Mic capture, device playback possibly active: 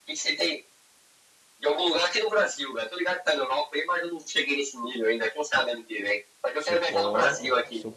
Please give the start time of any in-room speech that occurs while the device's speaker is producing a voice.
7 s

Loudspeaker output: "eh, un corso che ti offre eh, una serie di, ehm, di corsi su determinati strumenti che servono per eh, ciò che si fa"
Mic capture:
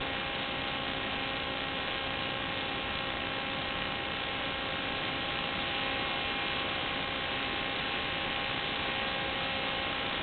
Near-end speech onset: none

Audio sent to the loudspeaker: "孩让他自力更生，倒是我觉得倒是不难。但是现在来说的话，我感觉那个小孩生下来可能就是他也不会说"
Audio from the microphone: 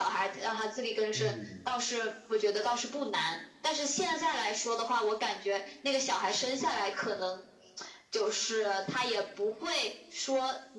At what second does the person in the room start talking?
1 s

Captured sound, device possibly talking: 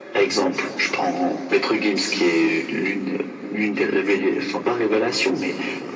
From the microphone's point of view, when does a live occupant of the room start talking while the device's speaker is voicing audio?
none

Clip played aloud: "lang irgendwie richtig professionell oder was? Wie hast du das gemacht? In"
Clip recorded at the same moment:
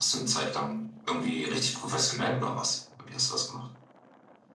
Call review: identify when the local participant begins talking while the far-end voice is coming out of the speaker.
none

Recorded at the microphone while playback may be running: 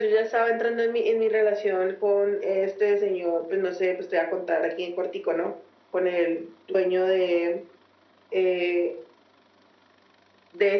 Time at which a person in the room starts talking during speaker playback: none

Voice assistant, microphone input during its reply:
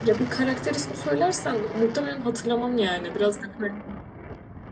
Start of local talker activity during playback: none

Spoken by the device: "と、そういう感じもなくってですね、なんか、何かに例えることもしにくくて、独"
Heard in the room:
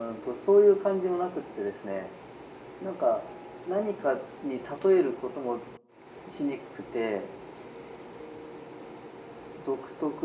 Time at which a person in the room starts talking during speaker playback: none

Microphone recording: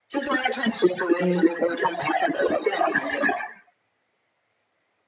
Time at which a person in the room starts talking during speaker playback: 1 s

